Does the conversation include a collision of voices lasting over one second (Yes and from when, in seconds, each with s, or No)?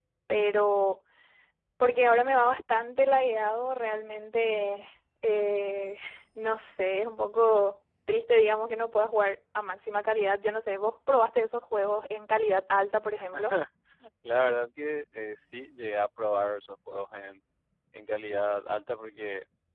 No